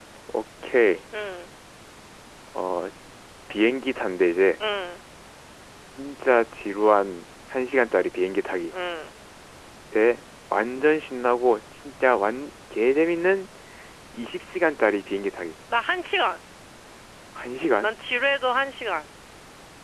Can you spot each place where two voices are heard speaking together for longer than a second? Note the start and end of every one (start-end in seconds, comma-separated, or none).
none